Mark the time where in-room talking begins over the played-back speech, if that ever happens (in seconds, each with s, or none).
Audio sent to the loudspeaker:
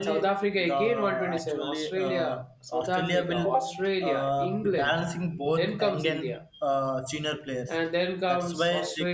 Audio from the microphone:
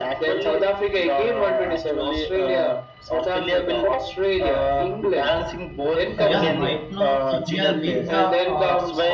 6.2 s